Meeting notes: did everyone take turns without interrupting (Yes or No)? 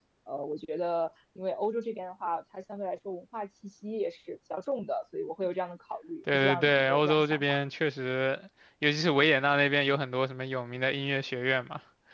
No